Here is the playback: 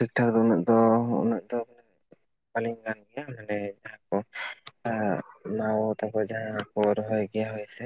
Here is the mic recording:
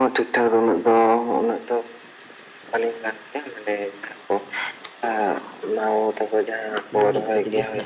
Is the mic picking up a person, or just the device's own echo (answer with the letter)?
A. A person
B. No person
A